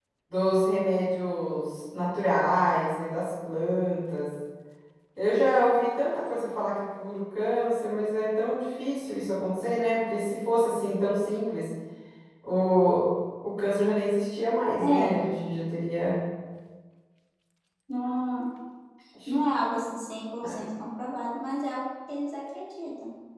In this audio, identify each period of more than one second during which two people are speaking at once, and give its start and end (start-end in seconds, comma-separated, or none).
none